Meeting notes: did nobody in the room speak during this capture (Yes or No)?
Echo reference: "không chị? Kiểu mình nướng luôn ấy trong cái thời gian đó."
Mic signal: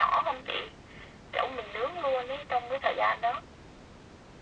Yes